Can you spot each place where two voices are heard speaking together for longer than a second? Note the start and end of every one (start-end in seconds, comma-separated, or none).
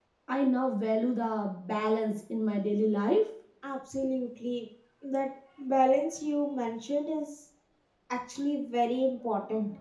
none